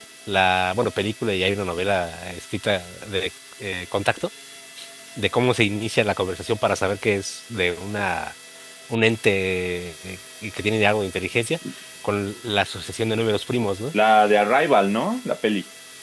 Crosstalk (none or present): none